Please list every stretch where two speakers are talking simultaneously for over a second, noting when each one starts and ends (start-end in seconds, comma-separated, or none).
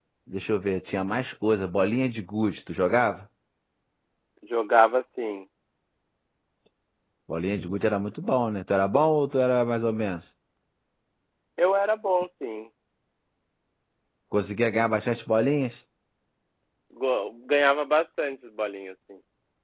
none